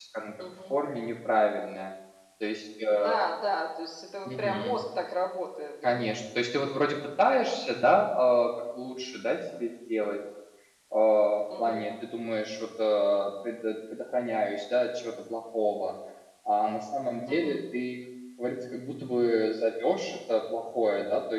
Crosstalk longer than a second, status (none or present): none